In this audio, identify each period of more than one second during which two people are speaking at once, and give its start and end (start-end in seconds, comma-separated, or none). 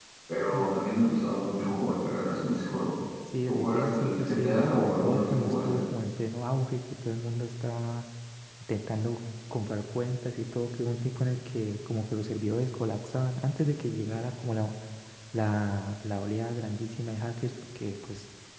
3.5-5.8